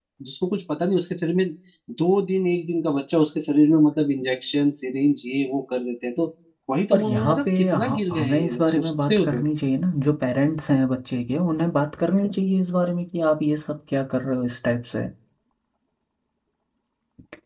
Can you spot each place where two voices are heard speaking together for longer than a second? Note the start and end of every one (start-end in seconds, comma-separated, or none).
6.9-9.4